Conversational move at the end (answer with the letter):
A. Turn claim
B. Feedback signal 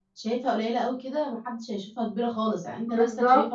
B